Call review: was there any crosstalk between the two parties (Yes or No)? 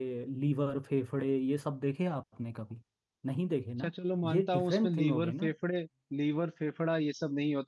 Yes